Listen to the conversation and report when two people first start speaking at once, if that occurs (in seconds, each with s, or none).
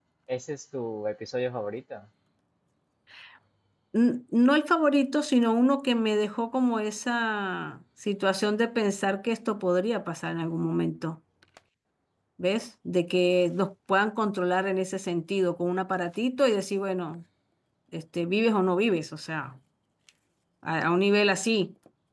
none